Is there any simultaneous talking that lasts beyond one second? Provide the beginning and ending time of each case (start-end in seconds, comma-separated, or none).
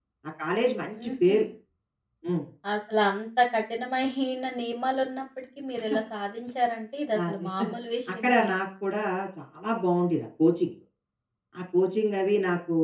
none